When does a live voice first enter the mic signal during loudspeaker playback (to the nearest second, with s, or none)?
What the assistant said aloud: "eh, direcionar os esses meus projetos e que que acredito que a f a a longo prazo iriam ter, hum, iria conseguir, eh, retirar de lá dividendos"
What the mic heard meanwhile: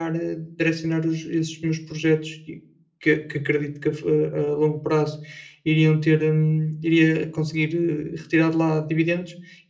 none